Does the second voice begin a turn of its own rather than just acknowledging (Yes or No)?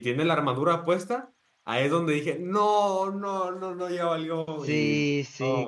Yes